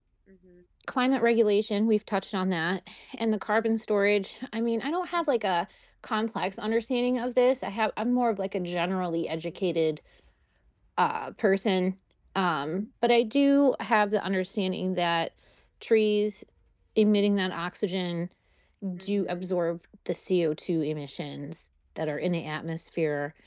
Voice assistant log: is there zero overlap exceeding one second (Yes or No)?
Yes